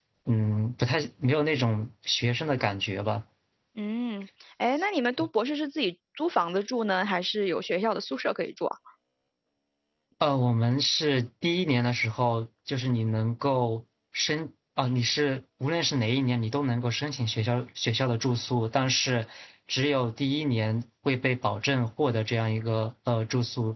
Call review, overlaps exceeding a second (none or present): none